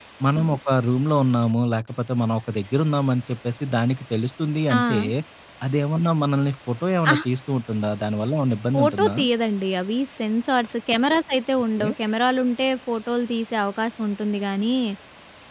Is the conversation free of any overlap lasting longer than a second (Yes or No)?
Yes